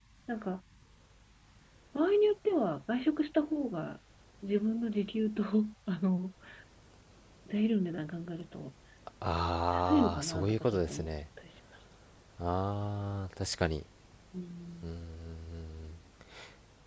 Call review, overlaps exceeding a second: present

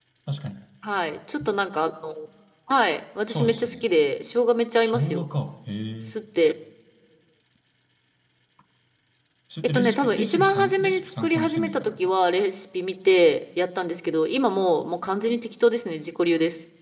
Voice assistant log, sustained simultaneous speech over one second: present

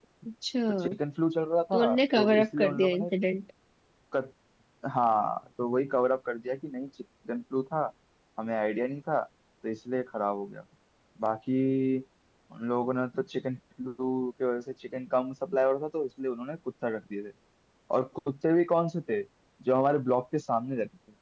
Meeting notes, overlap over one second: present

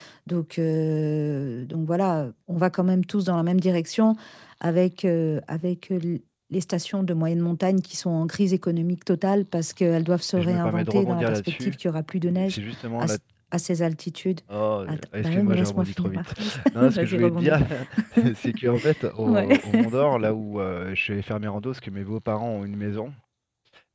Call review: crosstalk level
present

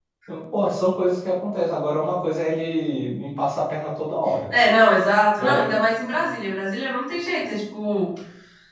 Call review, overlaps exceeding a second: none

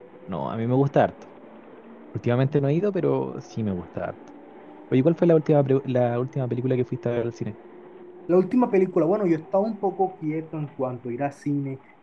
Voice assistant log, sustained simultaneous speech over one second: none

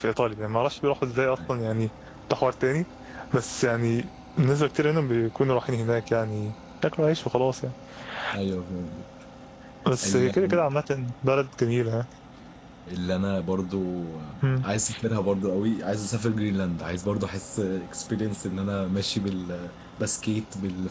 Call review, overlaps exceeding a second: none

